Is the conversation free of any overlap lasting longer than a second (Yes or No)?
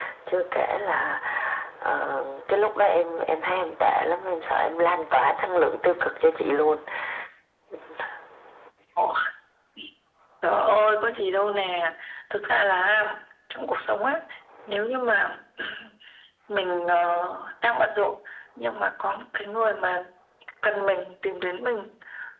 Yes